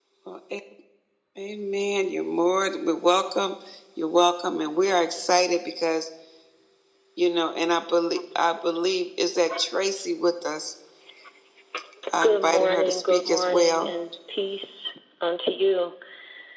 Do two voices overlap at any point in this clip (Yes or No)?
Yes